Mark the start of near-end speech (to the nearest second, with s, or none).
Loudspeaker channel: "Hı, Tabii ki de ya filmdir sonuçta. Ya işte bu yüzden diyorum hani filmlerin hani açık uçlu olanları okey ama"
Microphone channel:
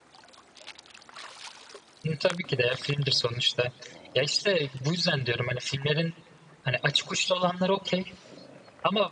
none